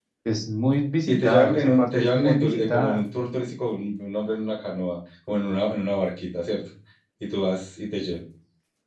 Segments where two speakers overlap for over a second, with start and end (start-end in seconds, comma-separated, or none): 1.1-3.0